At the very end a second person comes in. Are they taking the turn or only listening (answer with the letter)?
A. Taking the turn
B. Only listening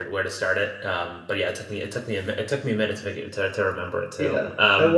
A